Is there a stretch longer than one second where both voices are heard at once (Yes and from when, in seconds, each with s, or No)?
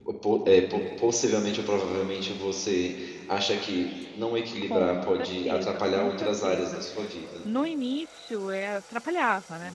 Yes, from 4.7 s